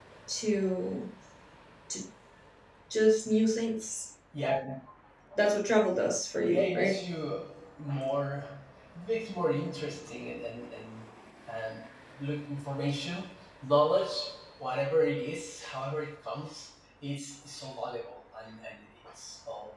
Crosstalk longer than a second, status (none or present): none